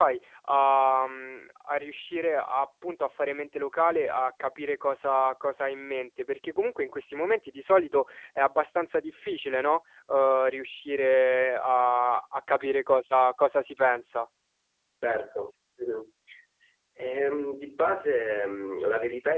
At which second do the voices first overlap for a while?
none

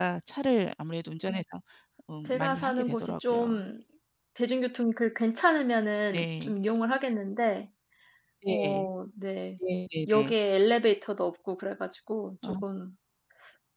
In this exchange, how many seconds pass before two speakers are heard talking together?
2 s

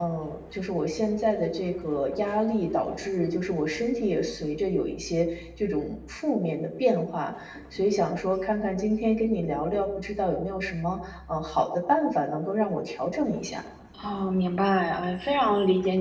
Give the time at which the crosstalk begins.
none

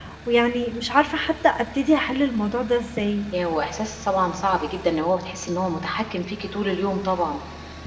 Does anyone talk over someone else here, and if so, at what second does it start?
none

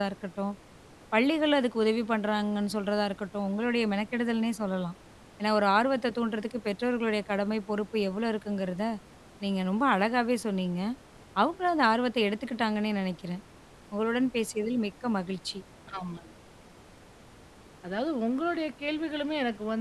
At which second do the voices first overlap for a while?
none

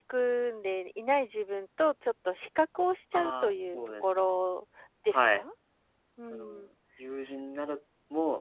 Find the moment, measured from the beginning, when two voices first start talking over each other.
3 s

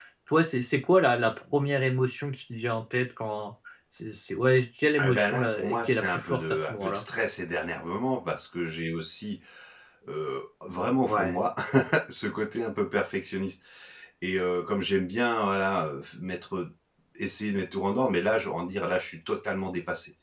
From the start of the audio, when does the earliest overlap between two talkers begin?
5 s

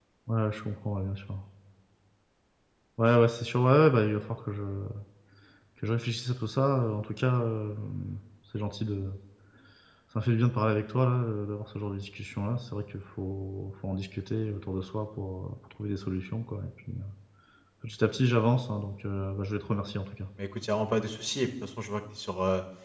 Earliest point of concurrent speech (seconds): none

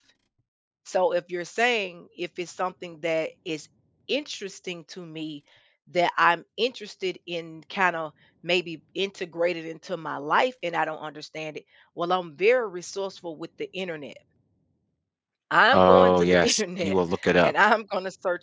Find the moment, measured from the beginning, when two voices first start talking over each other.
16 s

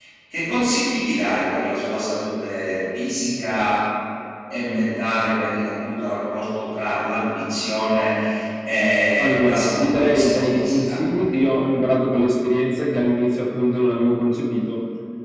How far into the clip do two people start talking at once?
9 s

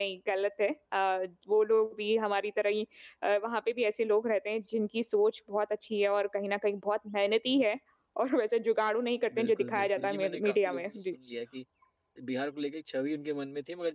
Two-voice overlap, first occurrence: 9 s

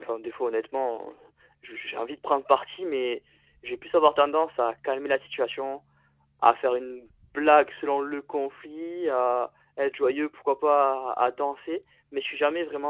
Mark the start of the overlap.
none

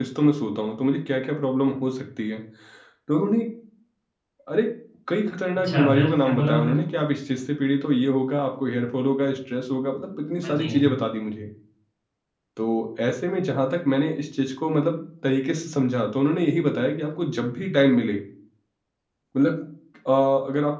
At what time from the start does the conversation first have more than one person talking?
6 s

